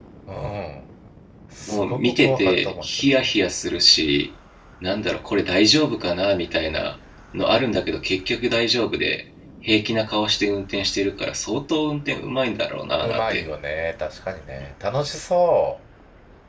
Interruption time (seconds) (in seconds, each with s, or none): 1.6 s